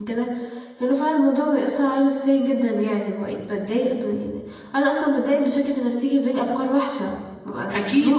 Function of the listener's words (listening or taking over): taking over